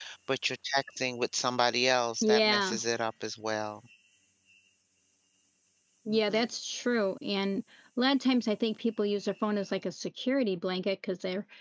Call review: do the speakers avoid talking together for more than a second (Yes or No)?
Yes